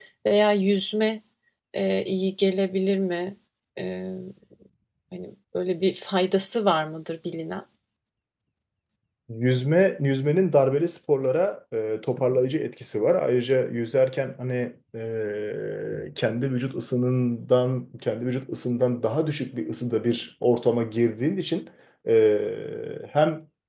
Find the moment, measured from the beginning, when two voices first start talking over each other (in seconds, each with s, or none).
none